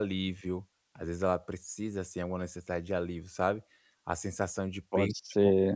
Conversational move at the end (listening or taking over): listening